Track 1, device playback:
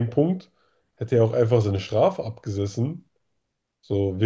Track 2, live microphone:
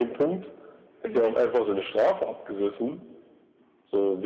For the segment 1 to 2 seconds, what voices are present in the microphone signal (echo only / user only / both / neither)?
both